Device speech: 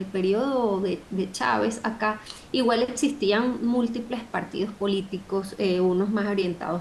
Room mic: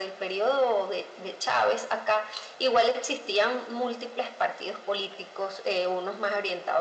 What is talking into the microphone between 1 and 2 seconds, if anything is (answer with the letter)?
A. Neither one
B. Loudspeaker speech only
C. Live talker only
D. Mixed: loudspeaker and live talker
B